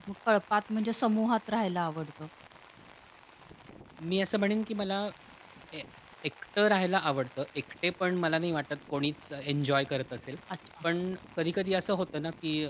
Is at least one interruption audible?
No

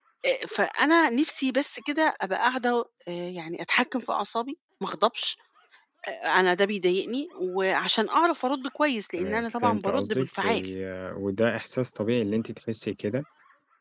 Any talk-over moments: Yes, from 9.2 s

